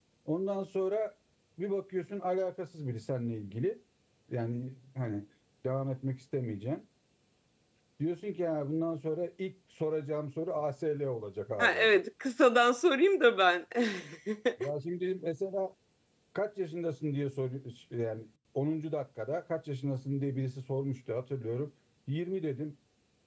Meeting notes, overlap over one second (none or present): none